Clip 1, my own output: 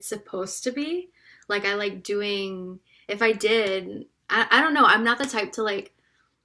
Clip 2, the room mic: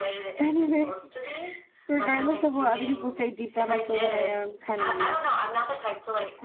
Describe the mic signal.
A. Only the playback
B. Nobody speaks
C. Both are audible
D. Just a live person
C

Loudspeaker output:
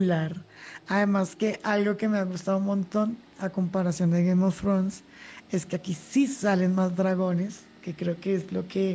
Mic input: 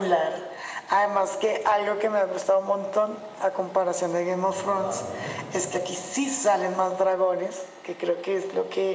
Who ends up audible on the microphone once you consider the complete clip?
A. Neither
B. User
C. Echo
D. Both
D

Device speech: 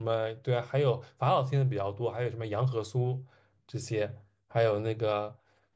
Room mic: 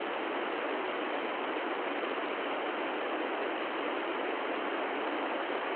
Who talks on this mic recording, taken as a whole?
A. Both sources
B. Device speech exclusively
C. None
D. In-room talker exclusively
C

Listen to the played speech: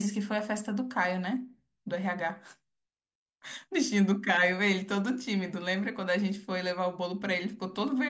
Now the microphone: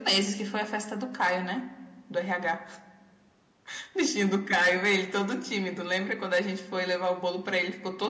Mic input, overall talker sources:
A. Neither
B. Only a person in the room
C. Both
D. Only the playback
D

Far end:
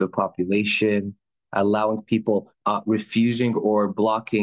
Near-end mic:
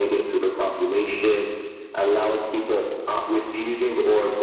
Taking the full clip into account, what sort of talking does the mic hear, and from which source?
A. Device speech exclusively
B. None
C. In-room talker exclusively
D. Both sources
A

